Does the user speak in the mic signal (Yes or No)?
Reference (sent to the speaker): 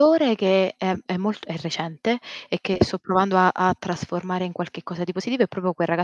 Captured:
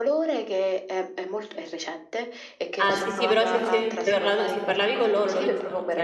Yes